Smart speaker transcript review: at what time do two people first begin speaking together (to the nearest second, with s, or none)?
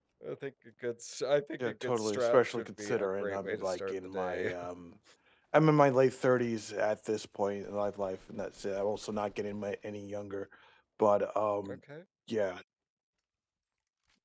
2 s